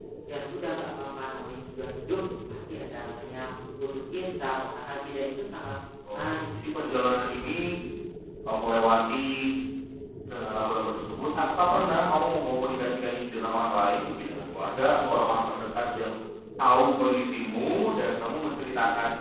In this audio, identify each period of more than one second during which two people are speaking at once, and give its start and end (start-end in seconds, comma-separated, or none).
6.1-7.4